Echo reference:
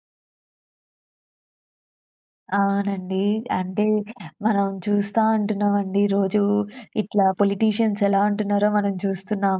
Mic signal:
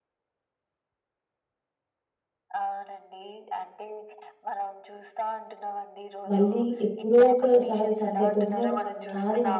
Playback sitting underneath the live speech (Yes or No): Yes